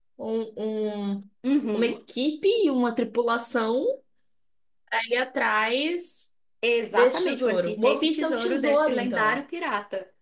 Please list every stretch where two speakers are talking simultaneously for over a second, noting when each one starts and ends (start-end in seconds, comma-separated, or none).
6.9-9.4